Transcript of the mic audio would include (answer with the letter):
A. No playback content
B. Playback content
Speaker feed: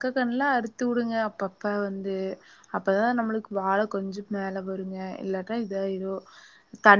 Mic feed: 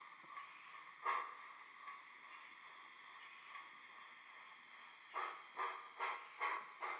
A